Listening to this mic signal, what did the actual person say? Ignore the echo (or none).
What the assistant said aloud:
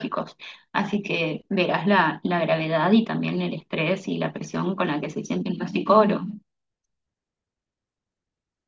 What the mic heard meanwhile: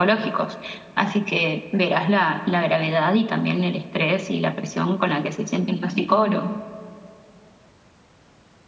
none